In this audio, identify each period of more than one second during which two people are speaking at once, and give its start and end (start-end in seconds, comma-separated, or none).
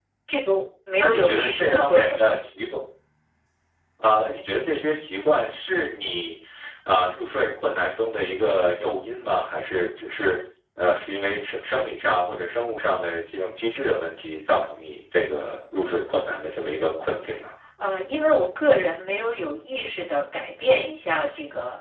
1.0-2.3